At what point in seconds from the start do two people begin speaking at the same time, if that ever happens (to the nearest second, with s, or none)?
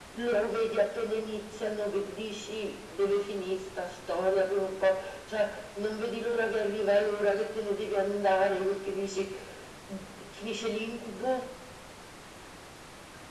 none